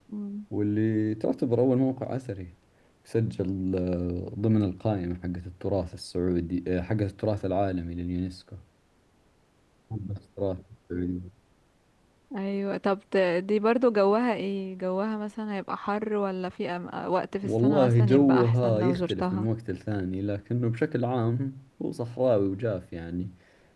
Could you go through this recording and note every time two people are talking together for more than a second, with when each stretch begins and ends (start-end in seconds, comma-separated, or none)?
17.4-19.5